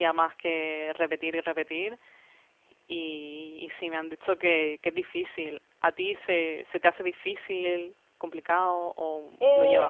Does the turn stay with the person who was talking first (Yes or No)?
No